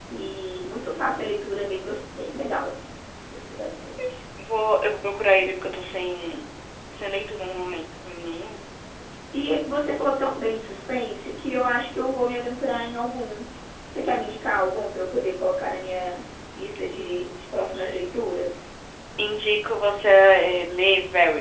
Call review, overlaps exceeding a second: none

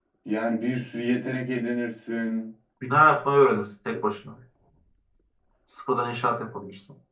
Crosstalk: none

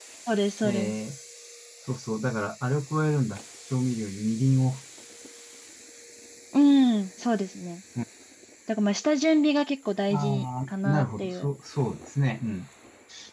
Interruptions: present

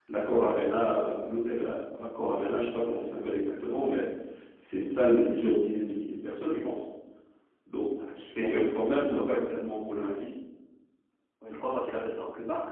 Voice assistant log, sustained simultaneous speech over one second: present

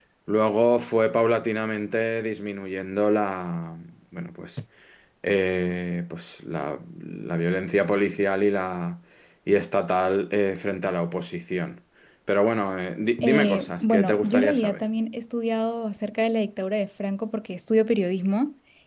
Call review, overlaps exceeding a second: present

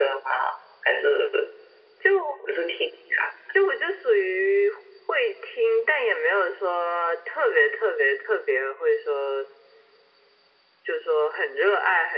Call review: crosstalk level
none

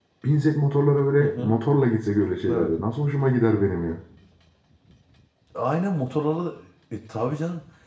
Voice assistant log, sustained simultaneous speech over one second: none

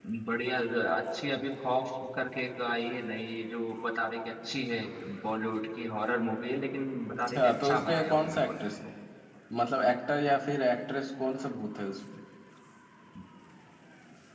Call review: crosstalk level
present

